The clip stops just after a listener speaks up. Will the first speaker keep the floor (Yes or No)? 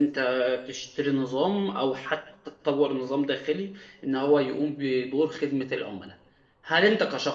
Yes